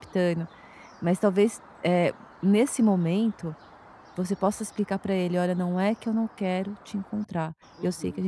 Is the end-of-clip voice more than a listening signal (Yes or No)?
No